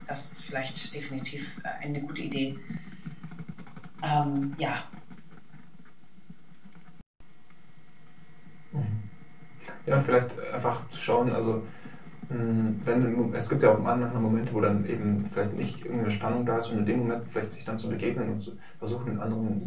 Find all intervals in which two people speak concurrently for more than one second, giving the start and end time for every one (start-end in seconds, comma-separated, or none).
none